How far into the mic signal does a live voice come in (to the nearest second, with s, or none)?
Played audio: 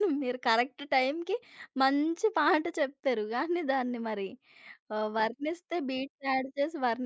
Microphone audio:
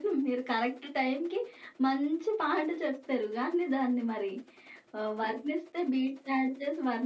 none